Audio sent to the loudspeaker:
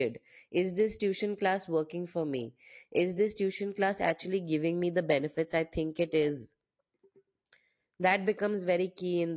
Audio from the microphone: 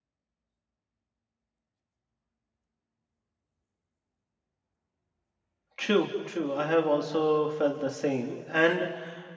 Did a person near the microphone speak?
Yes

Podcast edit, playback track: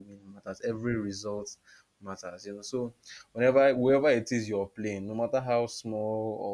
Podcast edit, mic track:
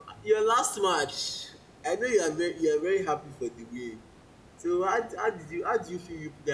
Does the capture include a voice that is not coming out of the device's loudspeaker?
Yes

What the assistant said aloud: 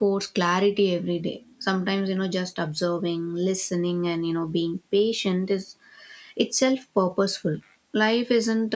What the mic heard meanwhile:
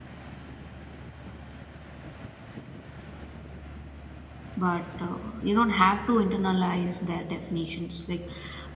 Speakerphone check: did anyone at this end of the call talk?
Yes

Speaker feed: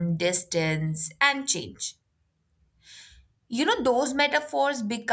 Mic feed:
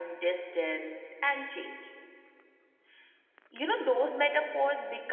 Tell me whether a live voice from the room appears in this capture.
No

